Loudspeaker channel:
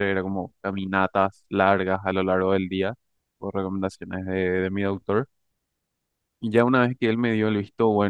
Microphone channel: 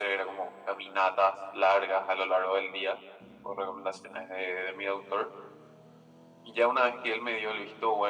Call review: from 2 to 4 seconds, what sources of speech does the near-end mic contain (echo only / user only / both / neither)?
echo only